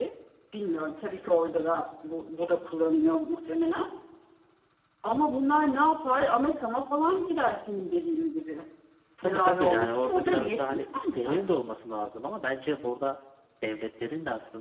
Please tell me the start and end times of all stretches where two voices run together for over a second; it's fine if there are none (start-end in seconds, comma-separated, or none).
9.2-11.5